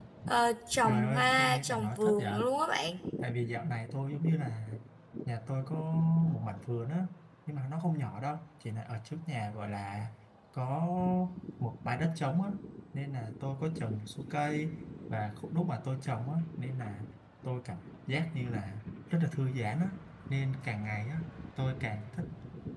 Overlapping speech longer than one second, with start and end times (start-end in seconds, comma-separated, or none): 0.9-2.3